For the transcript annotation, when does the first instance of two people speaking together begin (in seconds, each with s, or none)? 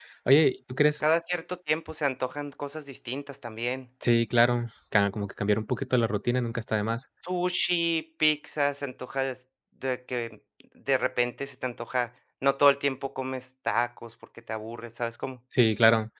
none